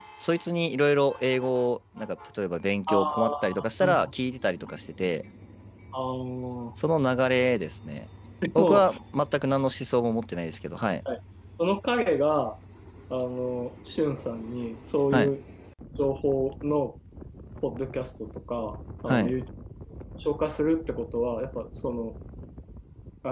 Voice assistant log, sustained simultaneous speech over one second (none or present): present